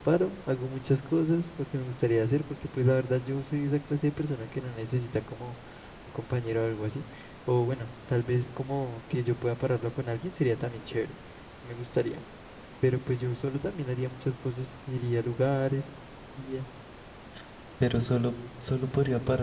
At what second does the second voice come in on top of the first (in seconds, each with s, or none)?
none